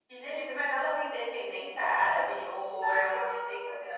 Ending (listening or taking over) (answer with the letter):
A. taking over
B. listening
A